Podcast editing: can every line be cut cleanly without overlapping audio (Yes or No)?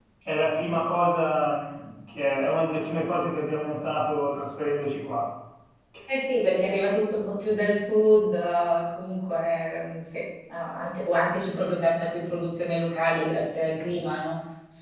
Yes